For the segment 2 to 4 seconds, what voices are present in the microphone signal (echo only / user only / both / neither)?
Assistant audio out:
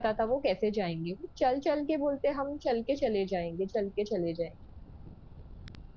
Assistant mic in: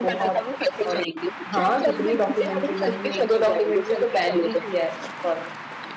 both